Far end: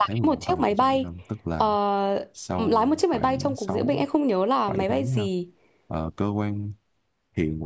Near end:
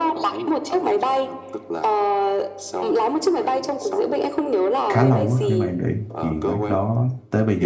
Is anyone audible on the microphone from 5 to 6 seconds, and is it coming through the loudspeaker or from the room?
both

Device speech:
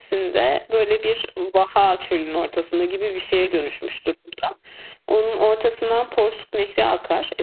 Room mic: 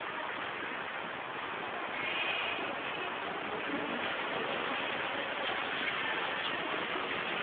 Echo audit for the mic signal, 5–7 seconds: neither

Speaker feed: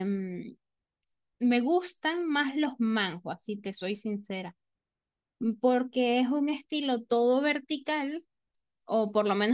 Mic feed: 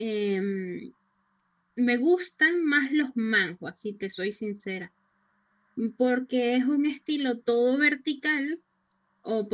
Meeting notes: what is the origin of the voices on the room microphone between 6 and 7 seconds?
echo only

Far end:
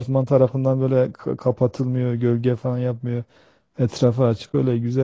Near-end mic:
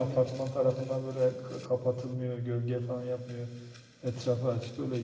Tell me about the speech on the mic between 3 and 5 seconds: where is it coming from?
echo only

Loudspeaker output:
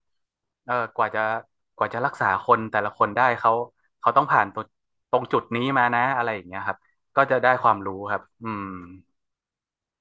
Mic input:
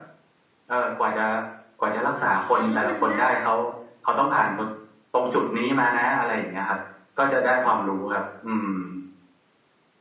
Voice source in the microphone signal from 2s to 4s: both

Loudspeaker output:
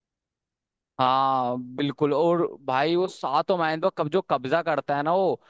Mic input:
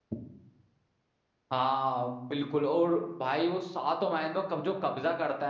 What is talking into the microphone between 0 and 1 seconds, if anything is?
neither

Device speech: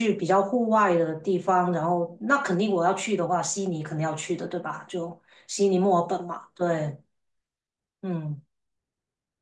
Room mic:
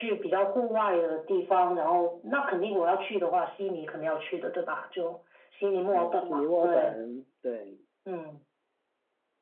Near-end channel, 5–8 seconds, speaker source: both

